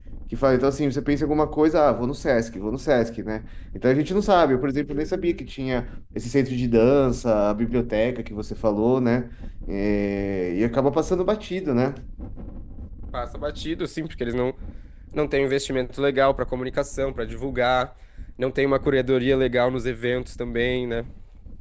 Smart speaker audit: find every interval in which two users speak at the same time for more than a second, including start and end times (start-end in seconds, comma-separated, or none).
none